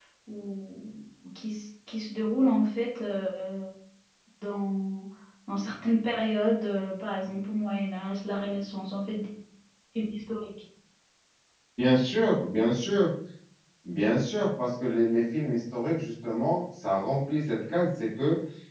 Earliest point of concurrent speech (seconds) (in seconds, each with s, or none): none